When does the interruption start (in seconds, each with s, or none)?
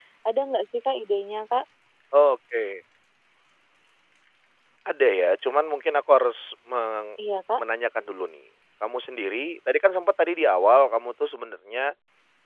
none